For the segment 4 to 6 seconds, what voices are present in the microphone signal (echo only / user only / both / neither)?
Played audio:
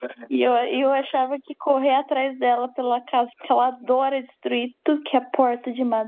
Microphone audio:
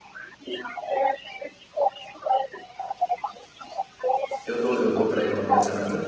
both